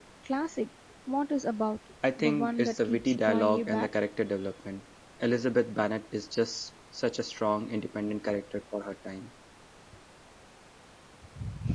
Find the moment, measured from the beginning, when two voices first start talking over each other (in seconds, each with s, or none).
2.2 s